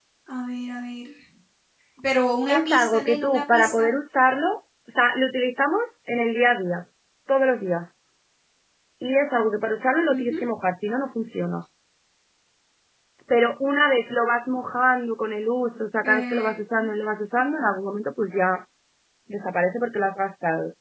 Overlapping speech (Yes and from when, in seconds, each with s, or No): Yes, from 2.5 s